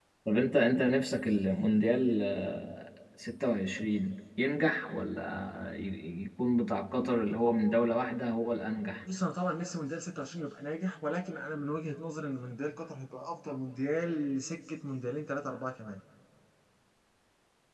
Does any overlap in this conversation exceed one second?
No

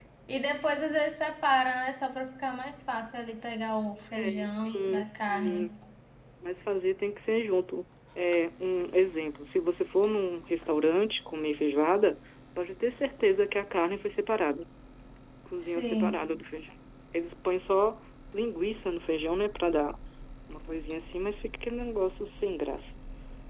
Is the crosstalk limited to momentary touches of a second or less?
No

